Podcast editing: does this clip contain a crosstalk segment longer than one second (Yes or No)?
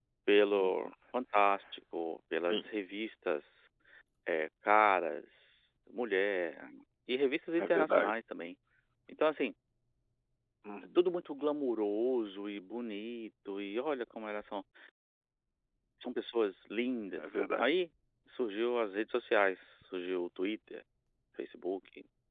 No